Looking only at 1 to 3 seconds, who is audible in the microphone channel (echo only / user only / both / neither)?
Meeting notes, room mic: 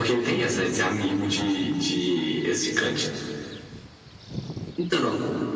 echo only